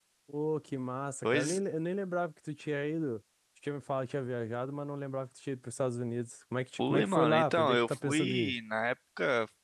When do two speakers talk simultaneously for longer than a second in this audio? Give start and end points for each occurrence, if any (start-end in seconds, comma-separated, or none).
6.8-8.5